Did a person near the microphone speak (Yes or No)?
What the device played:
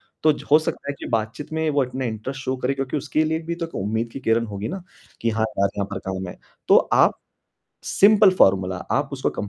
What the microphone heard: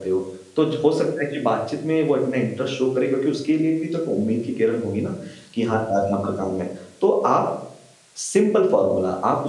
No